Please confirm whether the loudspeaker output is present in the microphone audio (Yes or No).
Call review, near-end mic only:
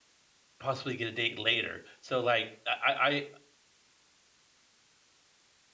No